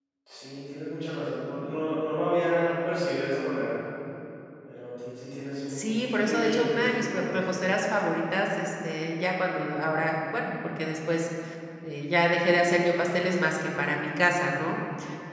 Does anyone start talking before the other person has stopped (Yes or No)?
Yes